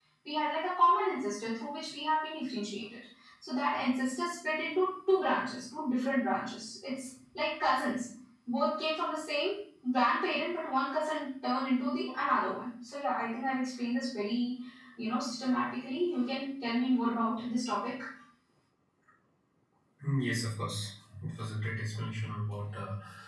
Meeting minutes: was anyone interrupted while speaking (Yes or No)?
No